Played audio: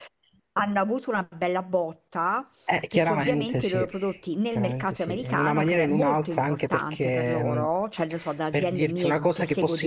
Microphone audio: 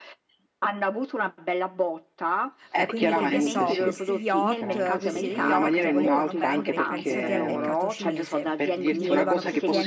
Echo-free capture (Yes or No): No